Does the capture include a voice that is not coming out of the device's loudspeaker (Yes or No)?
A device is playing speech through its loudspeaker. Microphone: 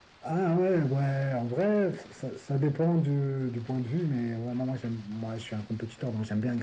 No